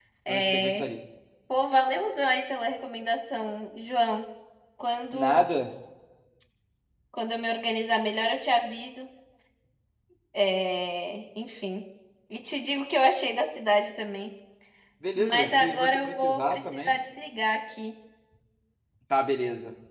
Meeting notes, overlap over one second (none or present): present